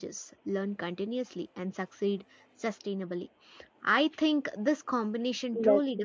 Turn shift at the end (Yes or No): No